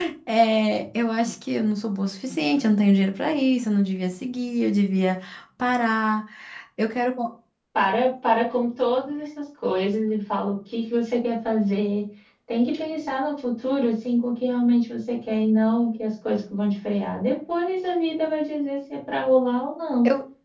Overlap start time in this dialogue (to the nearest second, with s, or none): none